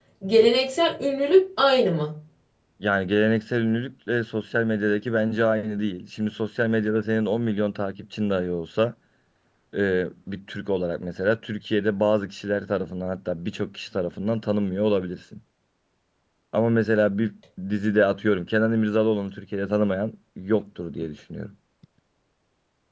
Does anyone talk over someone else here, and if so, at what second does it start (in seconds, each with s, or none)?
none